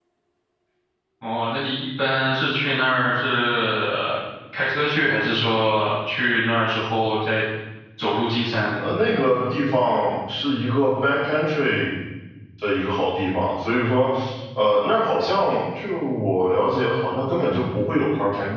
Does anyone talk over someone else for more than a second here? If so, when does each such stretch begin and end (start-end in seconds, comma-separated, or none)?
none